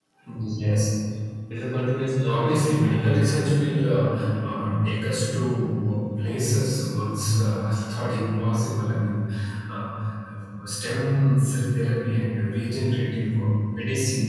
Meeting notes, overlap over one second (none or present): present